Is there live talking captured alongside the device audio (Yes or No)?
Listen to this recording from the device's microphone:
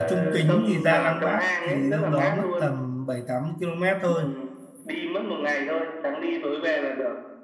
Yes